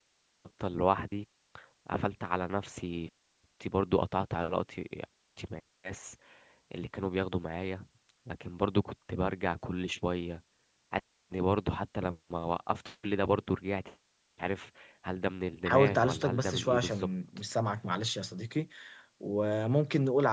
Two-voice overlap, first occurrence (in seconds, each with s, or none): 15.7 s